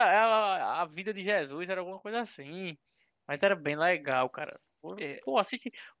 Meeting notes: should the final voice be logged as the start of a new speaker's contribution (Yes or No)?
No